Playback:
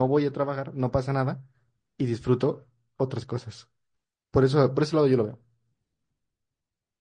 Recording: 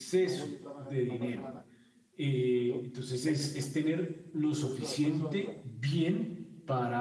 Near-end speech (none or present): present